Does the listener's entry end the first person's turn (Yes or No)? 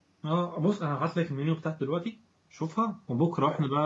No